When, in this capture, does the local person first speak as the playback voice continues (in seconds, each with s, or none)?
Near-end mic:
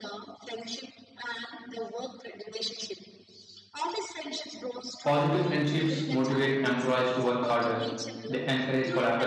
5.0 s